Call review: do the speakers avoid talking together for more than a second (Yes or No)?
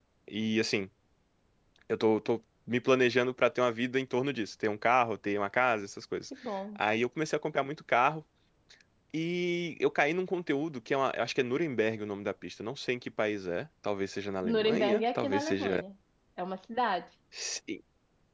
No